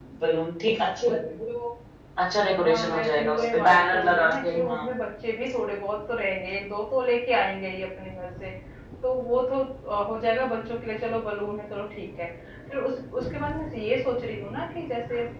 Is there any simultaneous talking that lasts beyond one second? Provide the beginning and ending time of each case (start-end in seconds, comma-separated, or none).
2.6-4.9